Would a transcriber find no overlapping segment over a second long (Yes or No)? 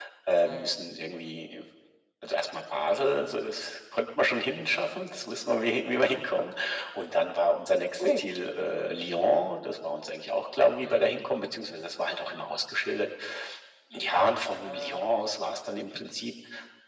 Yes